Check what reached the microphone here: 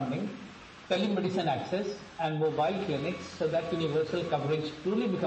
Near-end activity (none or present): none